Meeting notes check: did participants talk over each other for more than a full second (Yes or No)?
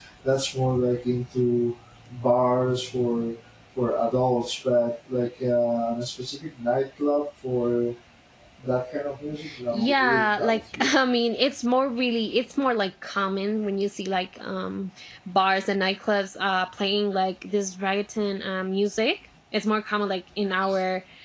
Yes